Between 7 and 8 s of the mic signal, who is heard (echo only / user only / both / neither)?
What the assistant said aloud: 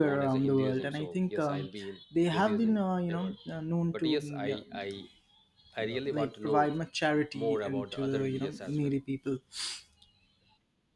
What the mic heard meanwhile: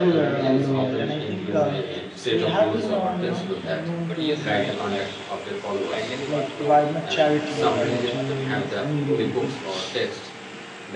both